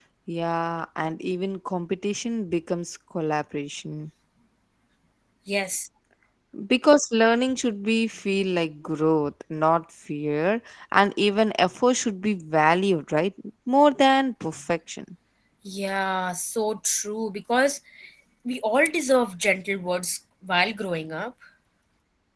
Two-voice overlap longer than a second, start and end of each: none

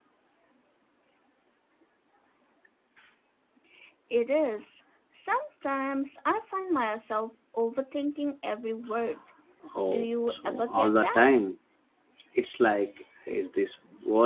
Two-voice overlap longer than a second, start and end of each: 9.9-11.3

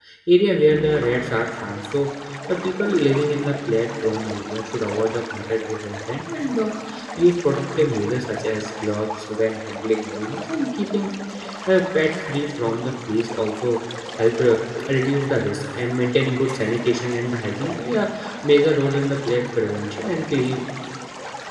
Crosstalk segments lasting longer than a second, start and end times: none

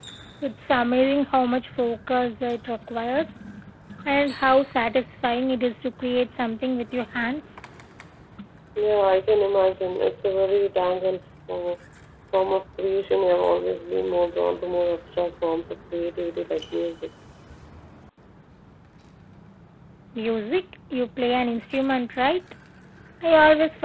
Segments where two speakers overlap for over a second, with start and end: none

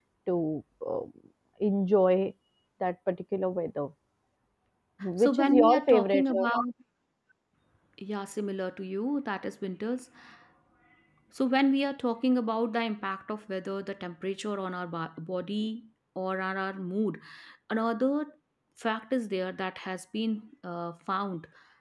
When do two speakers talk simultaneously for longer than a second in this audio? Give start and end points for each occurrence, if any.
5.2-6.4

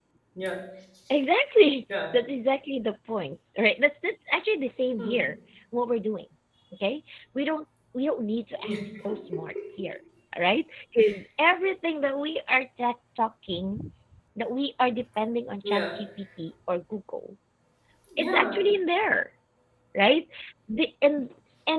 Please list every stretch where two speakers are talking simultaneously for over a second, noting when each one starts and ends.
none

